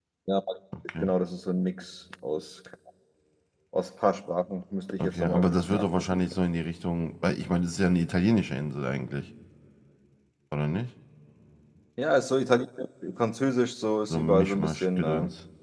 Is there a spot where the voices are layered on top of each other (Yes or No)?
Yes